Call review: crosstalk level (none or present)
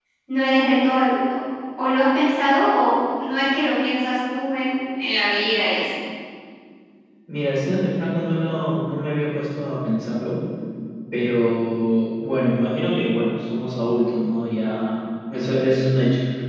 none